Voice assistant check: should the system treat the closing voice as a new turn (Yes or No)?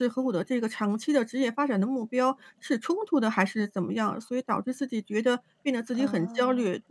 No